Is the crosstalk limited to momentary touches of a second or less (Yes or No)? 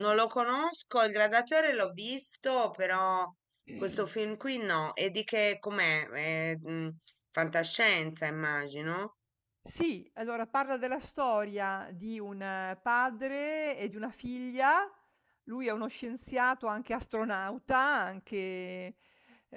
Yes